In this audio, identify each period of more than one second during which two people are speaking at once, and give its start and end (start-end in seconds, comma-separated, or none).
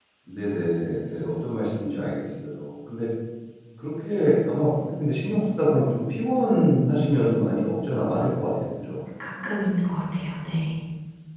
none